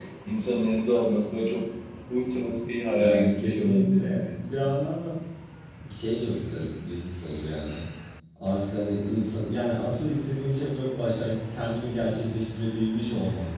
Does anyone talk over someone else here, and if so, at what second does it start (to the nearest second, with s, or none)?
3 s